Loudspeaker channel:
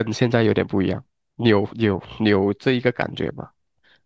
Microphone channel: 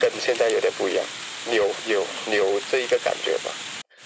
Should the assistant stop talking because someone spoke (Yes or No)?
No